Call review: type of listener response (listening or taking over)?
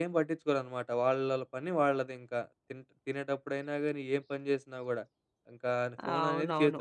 listening